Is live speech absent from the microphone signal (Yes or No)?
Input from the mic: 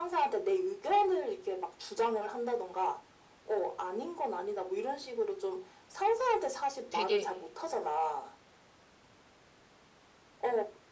No